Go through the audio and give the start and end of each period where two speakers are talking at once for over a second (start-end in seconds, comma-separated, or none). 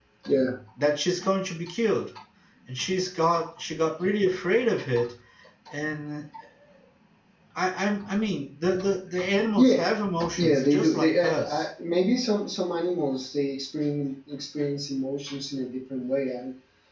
10.3-11.6